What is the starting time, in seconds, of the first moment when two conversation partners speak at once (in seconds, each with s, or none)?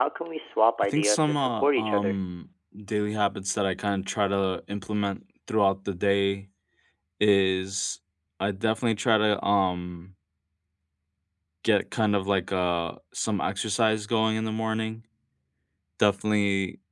0.8 s